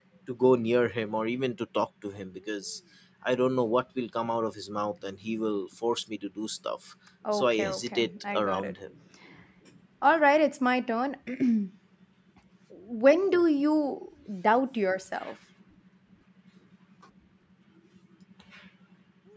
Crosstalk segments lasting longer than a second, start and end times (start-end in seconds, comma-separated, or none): 7.3-8.7